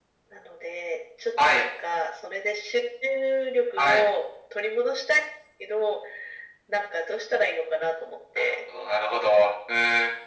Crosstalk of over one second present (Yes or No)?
No